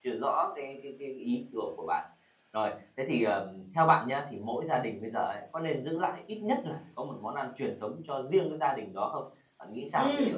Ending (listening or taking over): taking over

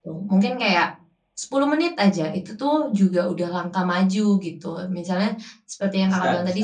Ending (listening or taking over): listening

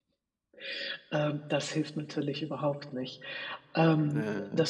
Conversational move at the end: listening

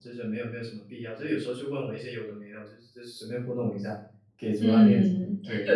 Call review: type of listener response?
taking over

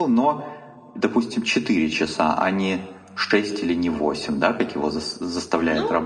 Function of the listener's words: taking over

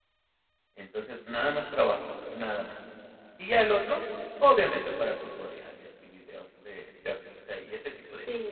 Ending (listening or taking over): taking over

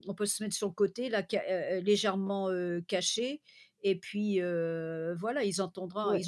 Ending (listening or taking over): listening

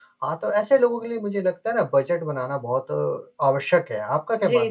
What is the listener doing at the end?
taking over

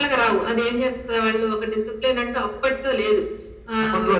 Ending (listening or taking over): listening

